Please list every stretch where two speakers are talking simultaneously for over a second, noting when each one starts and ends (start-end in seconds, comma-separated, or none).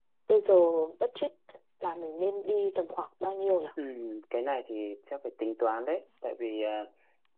none